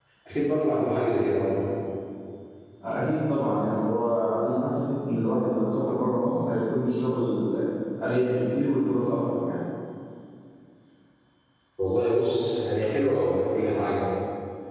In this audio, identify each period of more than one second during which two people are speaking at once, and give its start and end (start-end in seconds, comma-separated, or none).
none